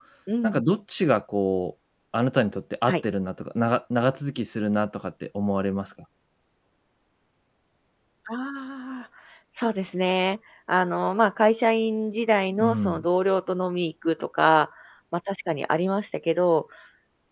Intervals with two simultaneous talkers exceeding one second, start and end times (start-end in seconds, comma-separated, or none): none